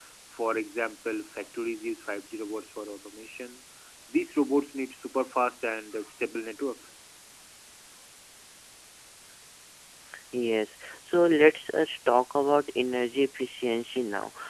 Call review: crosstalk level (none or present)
none